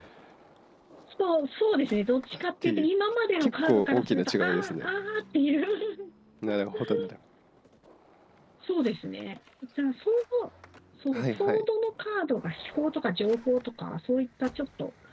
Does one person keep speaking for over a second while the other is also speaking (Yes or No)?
Yes